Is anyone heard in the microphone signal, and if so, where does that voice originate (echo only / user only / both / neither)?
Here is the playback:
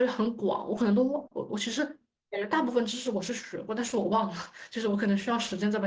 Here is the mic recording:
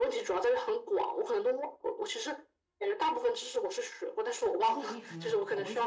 both